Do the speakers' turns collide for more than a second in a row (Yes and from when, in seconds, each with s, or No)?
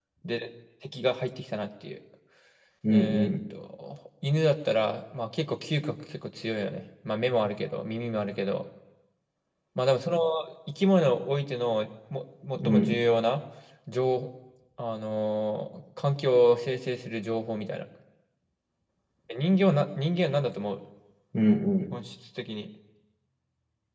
No